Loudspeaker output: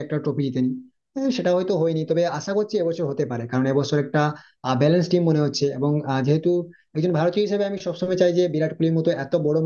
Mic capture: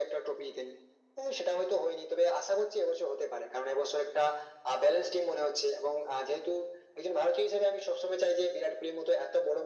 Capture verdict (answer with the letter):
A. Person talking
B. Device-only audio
B